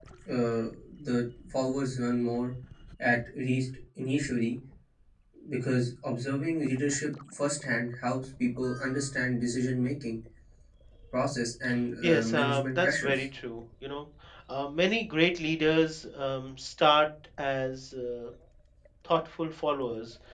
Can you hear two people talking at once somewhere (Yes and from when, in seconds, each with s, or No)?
Yes, from 12.0 s